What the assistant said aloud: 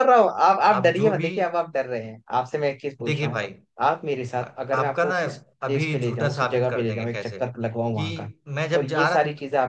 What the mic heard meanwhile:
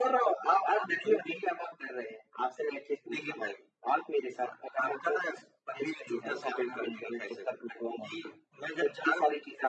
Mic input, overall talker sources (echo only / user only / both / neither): echo only